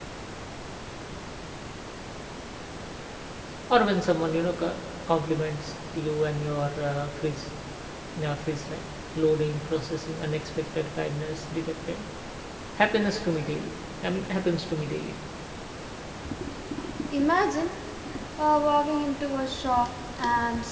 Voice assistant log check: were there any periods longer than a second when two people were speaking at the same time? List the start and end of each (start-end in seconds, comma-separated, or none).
none